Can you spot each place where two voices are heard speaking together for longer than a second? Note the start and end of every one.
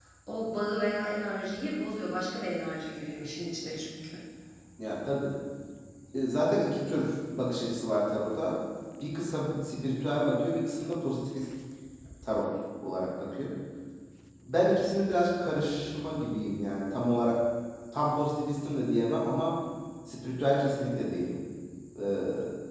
none

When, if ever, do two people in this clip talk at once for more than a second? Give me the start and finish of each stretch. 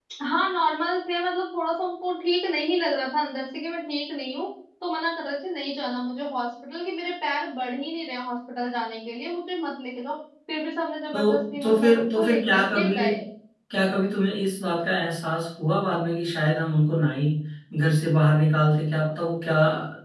11.1-13.0

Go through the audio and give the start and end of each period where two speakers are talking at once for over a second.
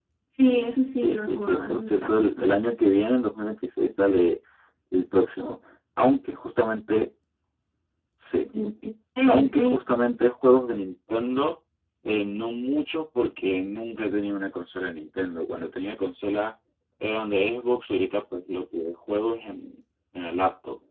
1.0-2.5

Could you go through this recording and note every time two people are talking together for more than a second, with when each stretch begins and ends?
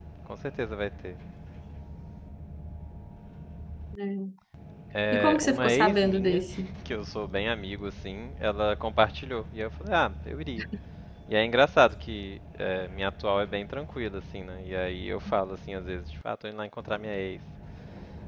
5.1-6.4

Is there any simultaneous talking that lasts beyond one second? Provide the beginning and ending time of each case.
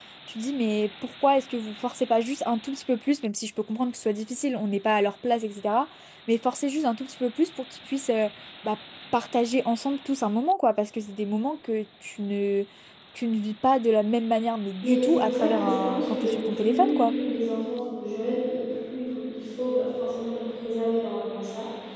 14.8-17.1

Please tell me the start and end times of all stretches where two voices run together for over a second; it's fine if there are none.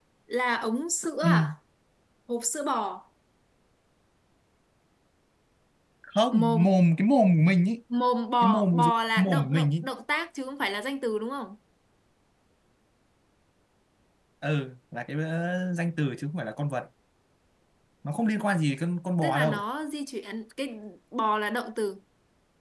8.4-9.7

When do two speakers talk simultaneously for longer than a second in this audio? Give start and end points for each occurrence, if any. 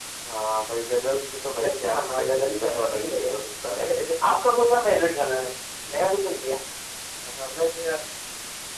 1.6-3.4

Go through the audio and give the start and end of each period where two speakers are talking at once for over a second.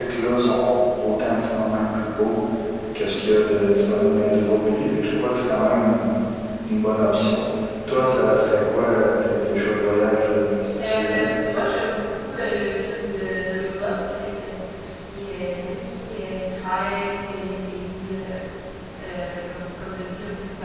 none

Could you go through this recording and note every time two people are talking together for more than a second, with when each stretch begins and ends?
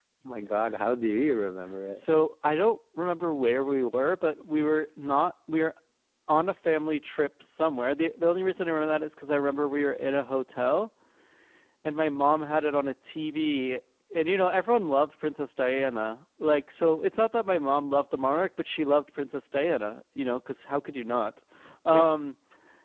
none

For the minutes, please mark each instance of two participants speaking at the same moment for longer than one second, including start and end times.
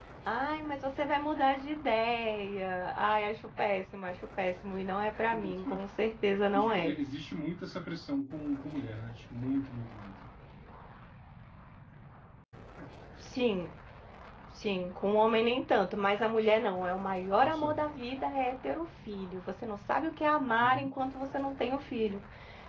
none

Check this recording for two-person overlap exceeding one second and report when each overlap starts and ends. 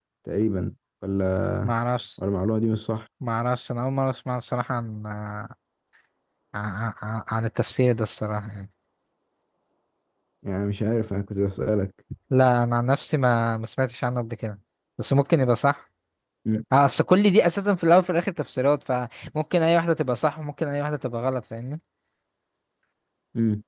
none

